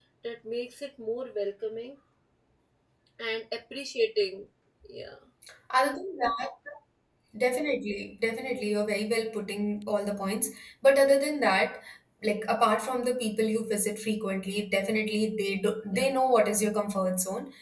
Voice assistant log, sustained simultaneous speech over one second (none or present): none